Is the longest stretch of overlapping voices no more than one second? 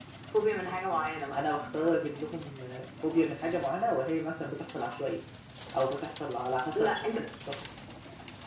Yes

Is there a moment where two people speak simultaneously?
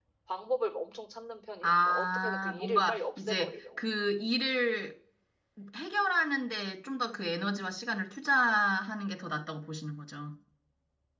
Yes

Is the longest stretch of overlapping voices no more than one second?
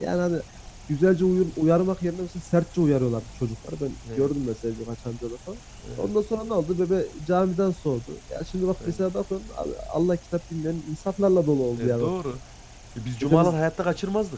Yes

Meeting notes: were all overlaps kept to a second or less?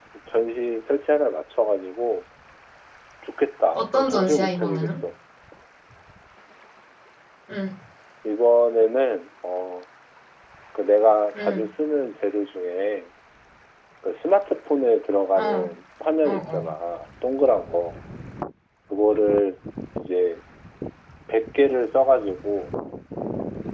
No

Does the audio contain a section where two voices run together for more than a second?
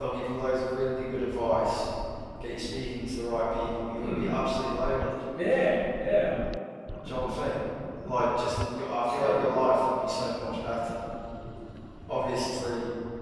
No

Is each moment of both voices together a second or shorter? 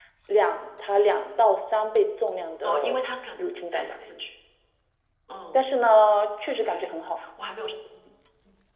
Yes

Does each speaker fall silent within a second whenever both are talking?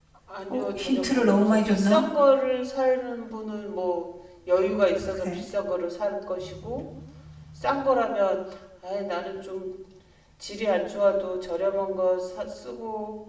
No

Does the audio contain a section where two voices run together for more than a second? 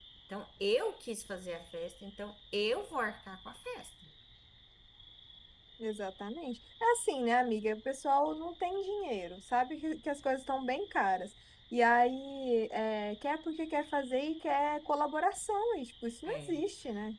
No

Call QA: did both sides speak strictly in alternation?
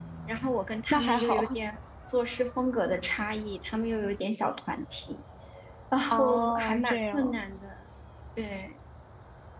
No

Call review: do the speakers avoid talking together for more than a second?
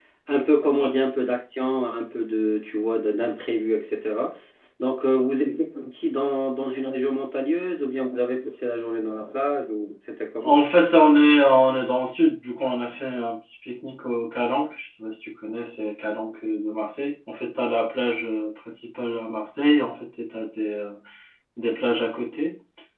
Yes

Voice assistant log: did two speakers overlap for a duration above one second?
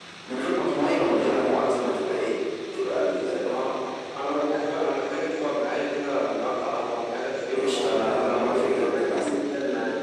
Yes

